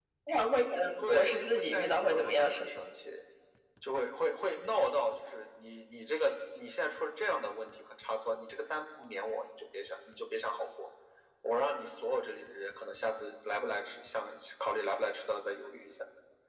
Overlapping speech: Yes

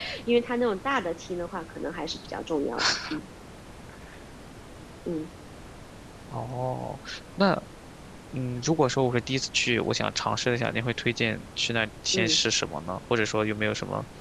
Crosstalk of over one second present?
No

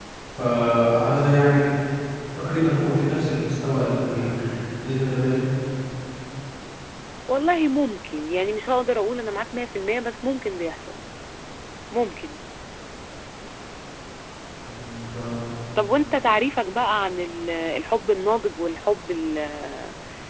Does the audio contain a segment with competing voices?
No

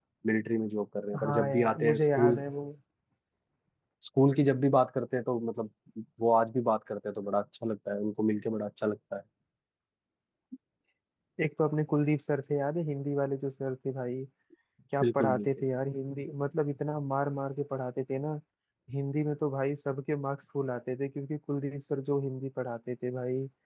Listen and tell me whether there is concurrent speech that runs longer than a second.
Yes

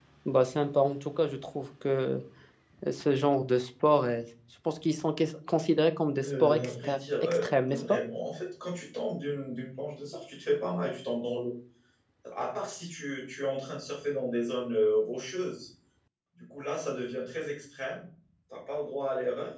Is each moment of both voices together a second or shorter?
No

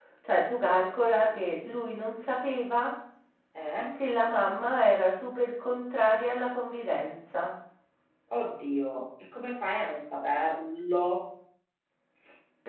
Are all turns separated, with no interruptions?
Yes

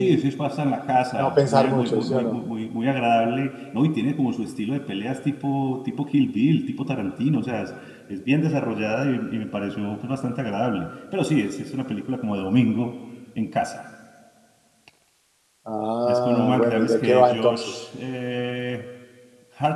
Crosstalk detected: Yes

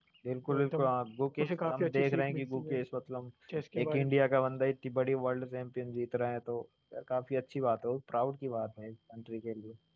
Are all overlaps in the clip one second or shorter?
No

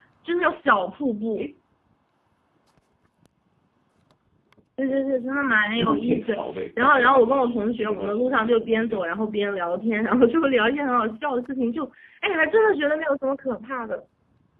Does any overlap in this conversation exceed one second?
Yes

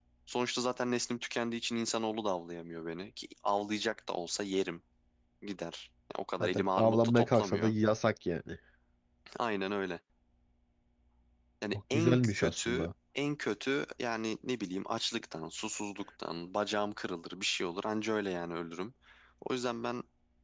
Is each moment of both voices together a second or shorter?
No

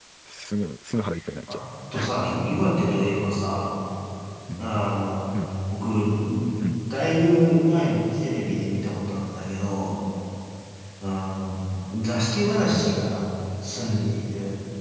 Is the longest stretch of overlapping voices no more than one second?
Yes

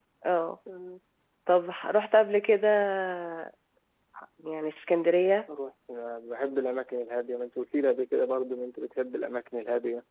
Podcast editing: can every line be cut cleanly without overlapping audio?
Yes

